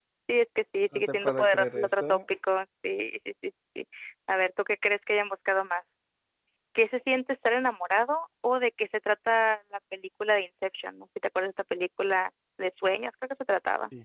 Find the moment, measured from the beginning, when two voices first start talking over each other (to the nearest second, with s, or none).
1 s